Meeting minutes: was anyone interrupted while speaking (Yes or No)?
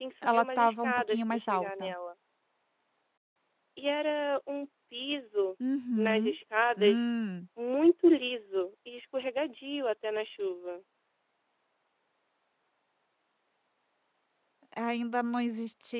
Yes